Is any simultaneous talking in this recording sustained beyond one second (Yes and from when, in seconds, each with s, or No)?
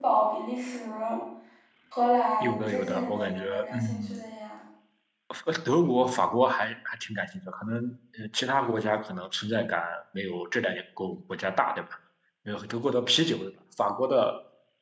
Yes, from 2.4 s